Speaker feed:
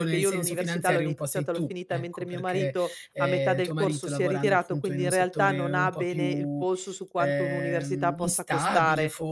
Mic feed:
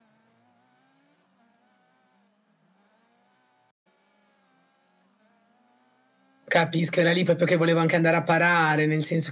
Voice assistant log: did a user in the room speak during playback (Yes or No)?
Yes